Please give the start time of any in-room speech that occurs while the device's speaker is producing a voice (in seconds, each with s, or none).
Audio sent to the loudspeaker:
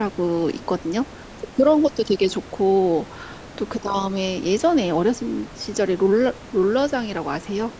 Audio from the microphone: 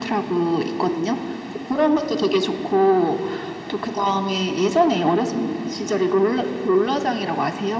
none